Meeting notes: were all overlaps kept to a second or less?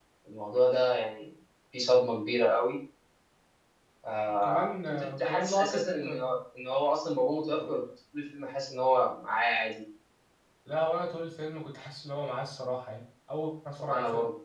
No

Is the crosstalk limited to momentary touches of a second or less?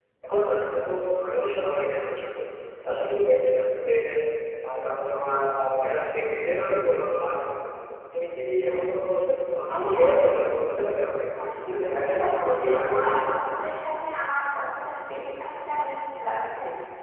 No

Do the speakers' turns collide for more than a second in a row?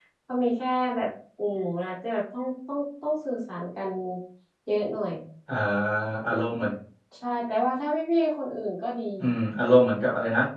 No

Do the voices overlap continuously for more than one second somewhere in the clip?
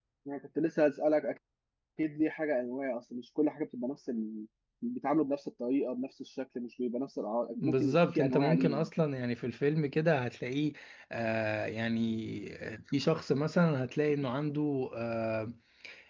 Yes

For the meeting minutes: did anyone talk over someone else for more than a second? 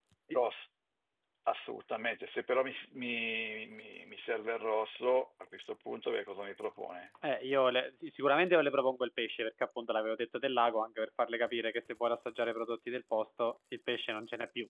No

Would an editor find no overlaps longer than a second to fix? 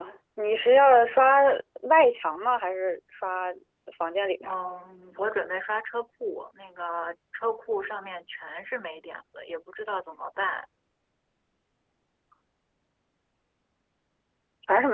Yes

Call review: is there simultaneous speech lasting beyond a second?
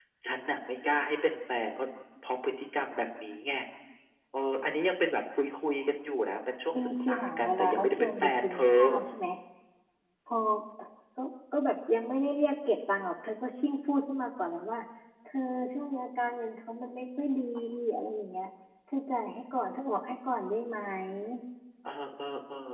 Yes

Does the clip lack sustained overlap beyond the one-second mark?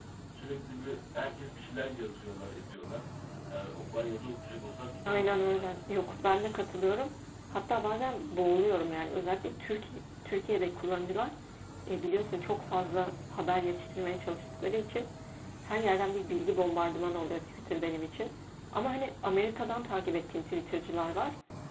No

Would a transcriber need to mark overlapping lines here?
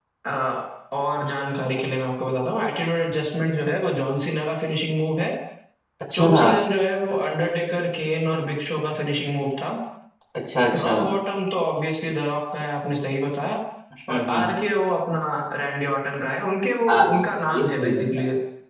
Yes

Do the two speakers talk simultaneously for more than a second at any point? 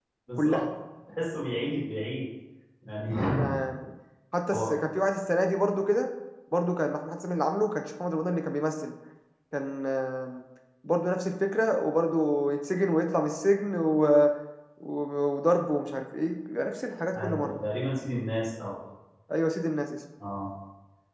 No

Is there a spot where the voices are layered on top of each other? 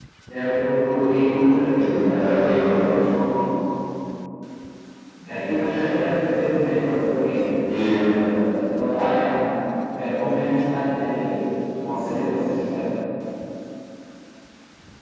Yes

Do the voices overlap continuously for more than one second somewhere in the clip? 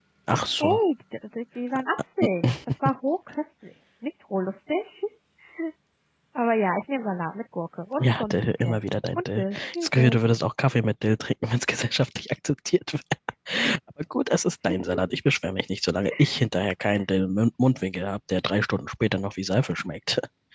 Yes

